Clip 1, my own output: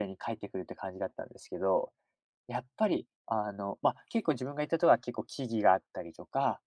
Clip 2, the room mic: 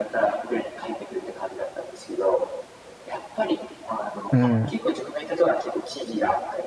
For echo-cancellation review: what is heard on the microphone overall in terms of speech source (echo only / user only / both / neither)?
both